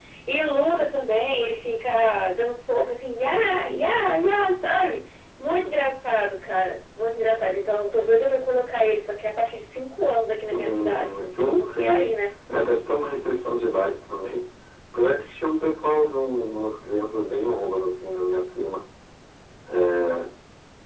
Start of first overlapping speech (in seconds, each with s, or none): 10.5 s